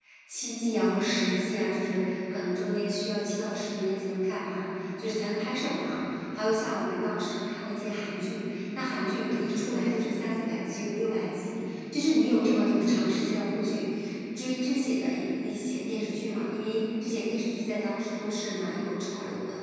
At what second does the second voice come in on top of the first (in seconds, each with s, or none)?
none